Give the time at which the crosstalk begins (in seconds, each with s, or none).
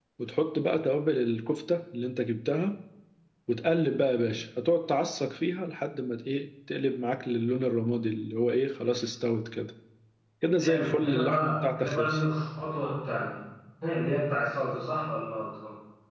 10.6 s